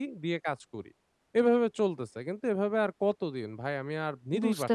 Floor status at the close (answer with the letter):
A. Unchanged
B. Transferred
B